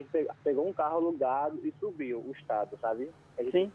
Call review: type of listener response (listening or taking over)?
listening